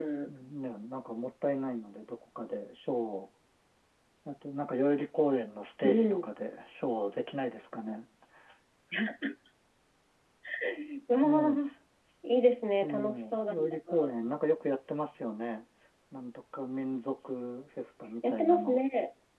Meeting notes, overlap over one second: present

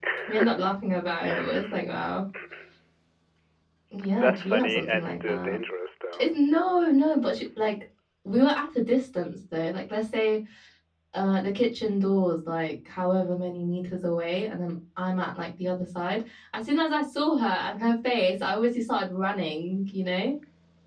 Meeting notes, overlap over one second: present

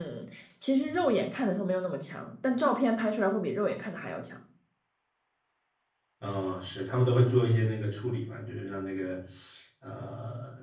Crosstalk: none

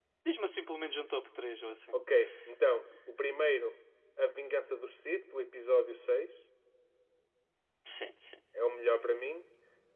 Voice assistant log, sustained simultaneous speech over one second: none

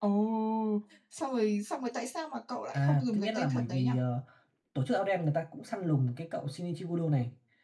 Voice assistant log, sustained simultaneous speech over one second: present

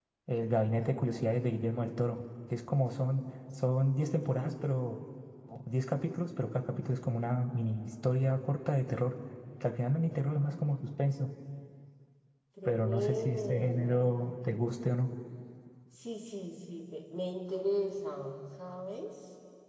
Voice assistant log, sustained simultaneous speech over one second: present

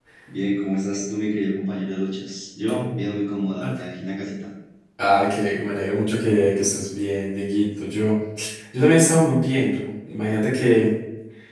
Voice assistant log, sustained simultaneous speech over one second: none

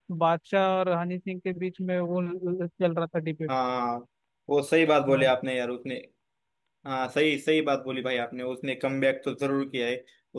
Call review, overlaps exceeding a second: none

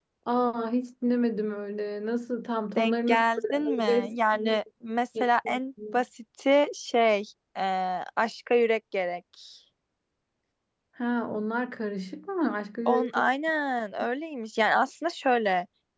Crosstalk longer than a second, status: present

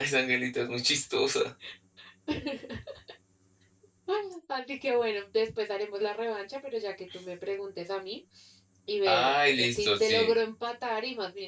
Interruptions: present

